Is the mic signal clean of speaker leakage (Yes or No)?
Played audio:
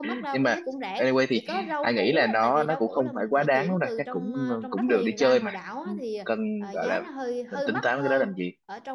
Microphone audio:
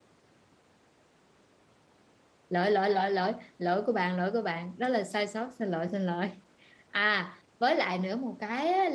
Yes